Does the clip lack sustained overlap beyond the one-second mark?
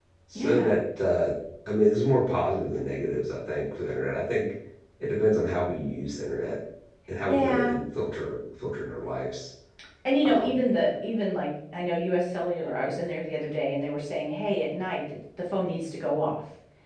Yes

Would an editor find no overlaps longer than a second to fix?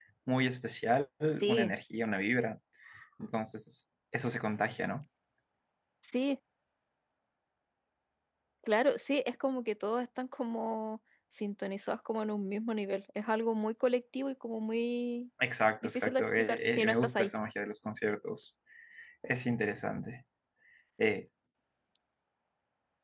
No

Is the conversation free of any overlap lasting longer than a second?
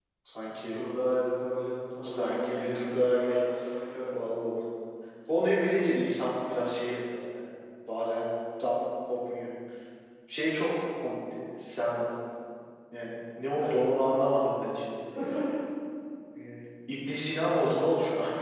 No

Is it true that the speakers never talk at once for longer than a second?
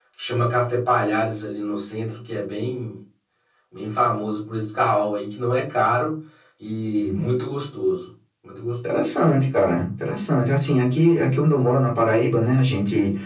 Yes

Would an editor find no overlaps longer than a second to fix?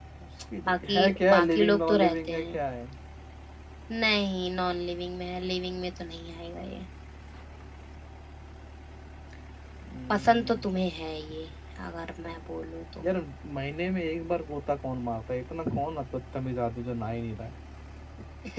No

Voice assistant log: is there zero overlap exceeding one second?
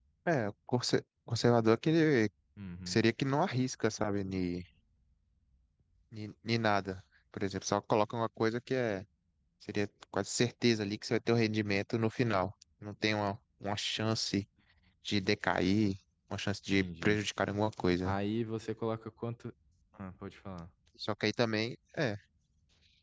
Yes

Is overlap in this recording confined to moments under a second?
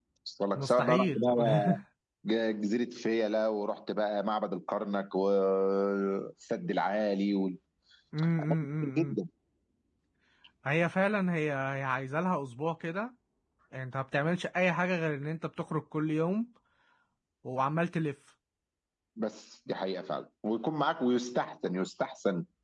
No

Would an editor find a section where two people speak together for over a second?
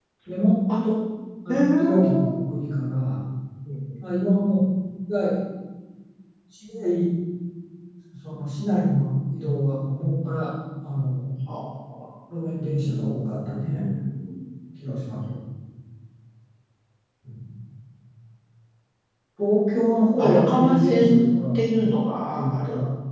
Yes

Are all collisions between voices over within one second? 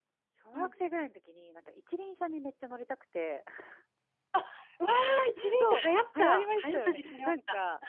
No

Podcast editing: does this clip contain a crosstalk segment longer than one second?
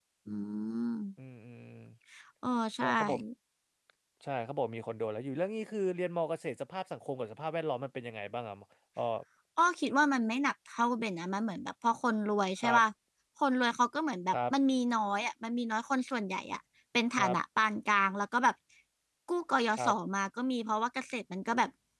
No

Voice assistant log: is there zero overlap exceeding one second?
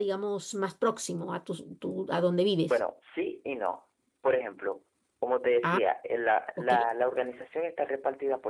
Yes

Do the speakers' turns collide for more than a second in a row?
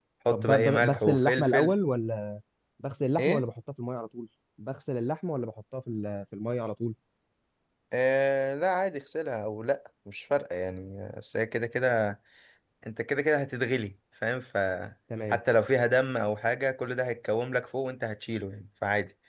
Yes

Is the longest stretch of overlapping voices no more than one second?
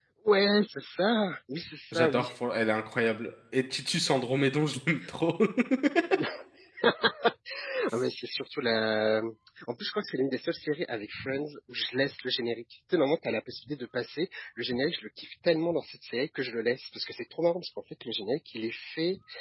Yes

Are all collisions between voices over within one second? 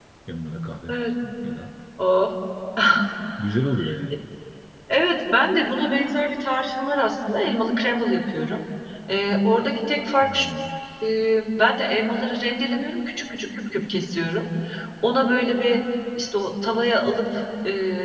Yes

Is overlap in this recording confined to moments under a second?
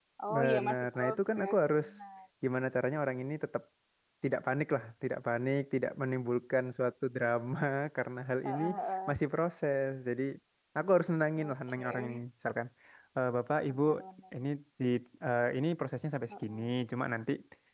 No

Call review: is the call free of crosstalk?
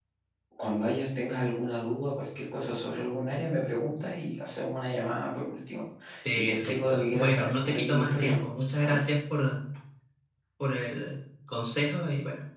No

